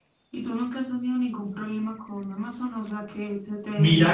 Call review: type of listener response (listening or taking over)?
taking over